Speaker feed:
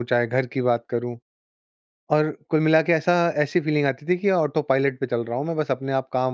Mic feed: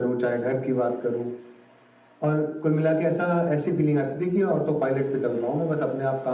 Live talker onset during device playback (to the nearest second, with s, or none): none